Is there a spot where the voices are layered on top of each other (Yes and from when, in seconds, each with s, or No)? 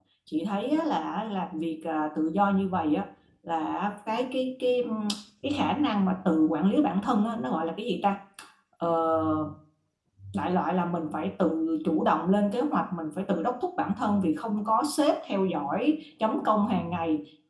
No